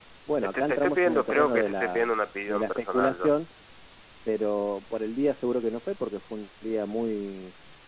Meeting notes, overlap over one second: present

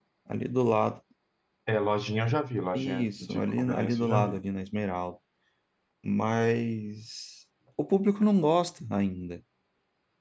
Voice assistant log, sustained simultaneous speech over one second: present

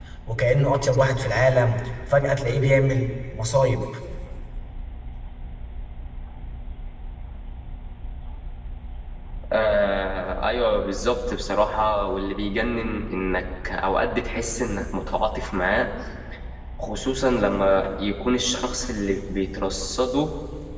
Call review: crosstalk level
none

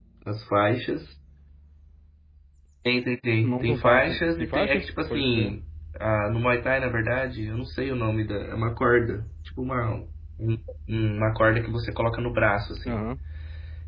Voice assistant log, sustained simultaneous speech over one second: present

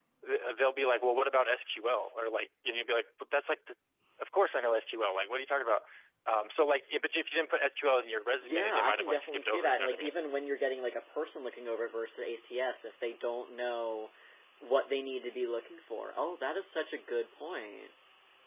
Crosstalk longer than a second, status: present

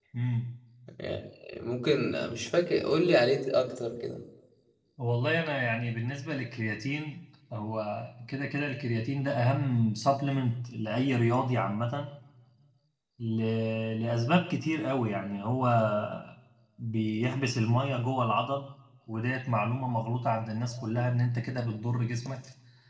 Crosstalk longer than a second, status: none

